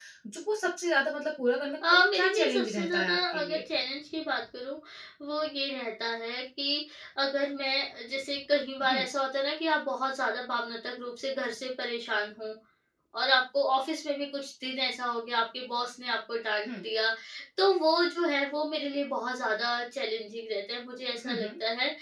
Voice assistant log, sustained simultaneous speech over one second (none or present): present